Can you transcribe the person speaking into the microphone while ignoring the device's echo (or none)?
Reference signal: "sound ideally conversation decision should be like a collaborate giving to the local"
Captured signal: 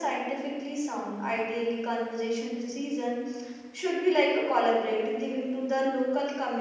none